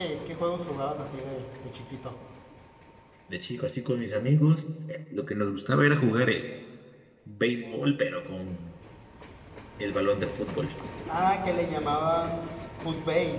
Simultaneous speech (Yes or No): No